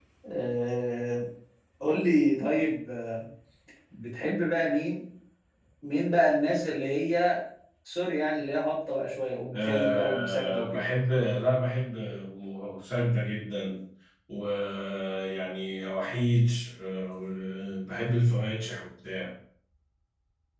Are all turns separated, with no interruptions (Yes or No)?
No